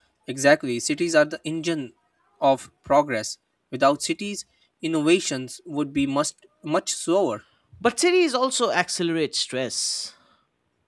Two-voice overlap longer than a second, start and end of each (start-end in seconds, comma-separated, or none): none